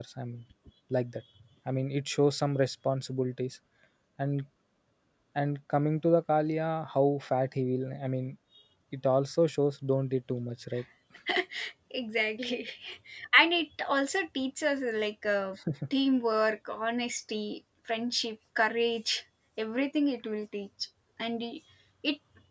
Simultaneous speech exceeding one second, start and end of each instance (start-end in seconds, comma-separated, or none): none